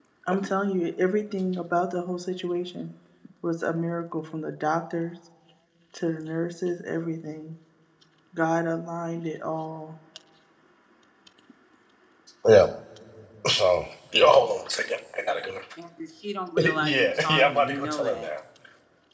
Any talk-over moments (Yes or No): Yes